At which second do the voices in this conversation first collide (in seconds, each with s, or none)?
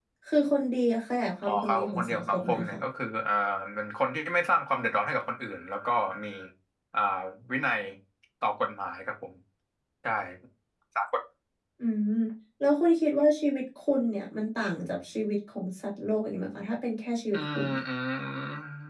1.4 s